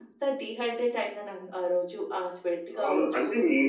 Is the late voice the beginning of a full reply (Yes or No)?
Yes